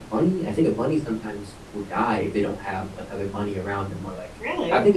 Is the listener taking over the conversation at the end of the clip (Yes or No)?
No